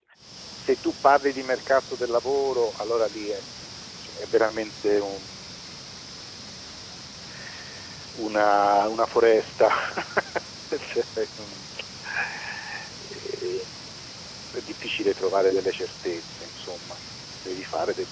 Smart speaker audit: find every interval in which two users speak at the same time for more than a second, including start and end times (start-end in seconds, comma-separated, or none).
none